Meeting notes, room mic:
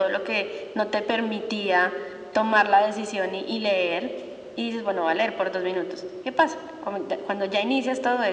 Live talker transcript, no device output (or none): none